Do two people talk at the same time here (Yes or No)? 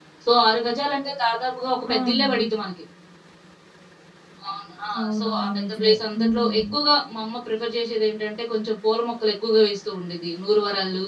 Yes